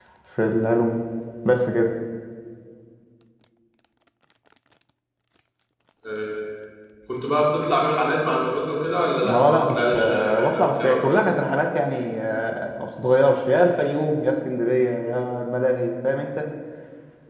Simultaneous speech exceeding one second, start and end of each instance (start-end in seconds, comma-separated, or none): 9.3-11.2